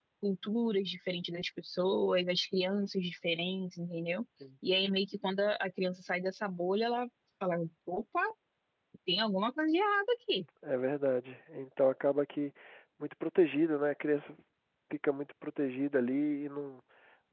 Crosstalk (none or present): none